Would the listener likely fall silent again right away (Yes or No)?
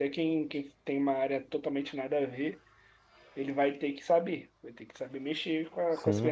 No